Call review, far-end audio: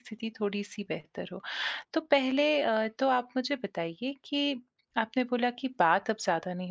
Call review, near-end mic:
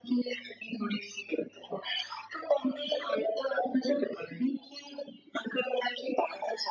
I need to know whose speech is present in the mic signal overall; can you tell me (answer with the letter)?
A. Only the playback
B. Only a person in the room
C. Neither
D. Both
A